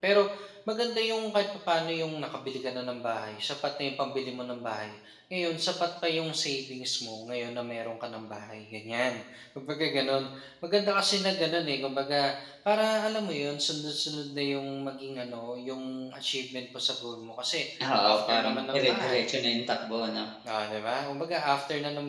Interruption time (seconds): 18.1 s

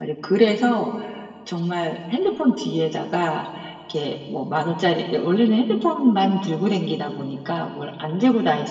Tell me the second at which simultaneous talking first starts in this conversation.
none

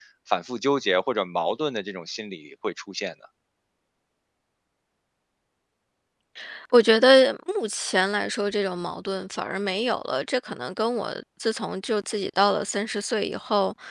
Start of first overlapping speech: none

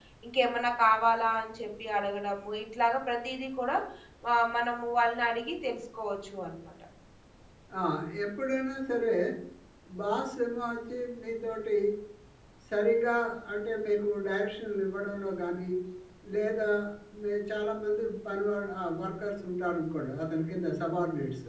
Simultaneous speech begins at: none

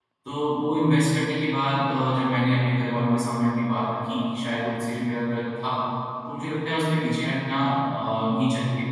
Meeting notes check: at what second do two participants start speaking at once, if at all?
none

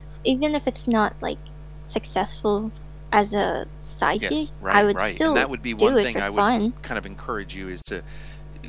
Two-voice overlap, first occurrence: 4.2 s

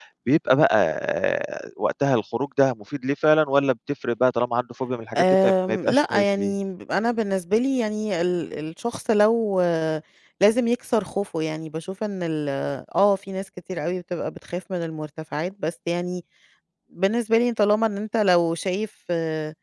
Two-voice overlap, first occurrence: 5.2 s

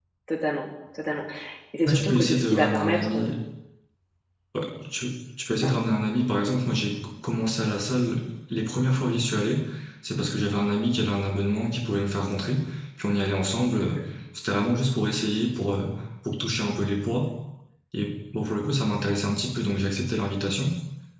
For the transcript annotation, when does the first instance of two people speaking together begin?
1.9 s

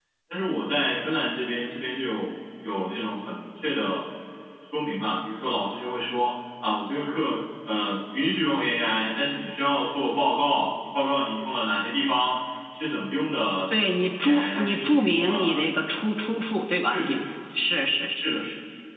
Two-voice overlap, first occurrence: 13.7 s

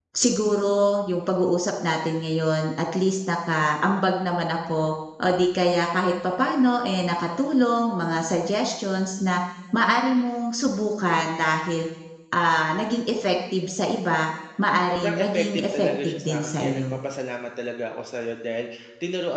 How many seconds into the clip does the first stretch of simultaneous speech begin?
14.9 s

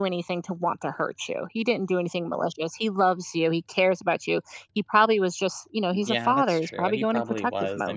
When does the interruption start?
5.9 s

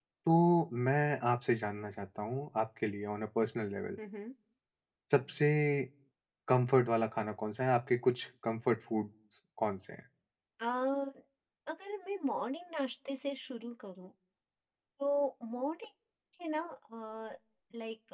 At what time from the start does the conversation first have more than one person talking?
none

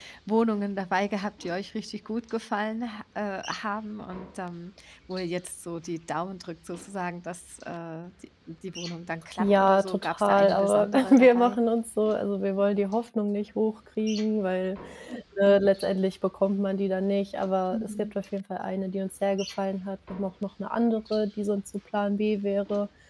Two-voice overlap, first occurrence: 9.4 s

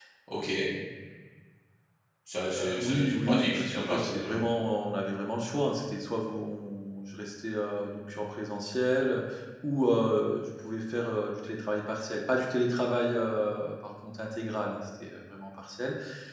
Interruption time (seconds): 2.4 s

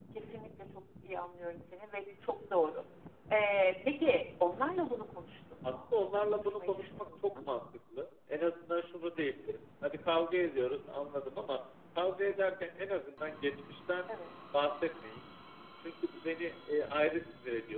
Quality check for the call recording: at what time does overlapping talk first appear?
5.6 s

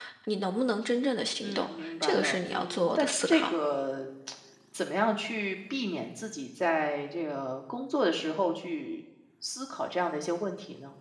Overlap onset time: 1.4 s

